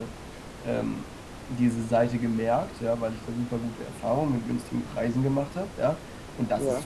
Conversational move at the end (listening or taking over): listening